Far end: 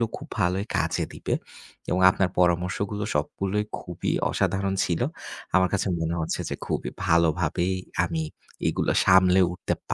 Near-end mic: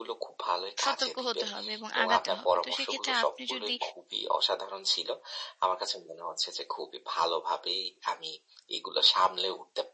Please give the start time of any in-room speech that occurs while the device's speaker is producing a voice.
0.8 s

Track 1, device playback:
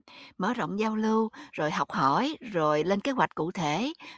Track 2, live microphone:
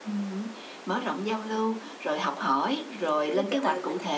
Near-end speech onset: 3.0 s

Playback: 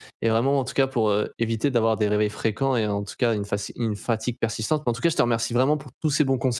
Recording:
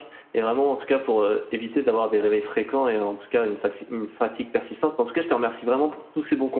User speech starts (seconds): none

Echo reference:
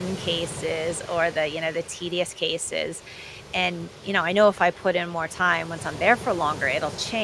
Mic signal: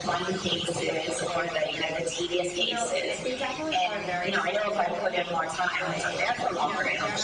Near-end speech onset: 2.6 s

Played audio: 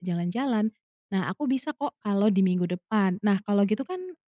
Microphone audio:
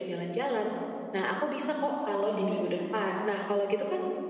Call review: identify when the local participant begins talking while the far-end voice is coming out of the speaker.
none

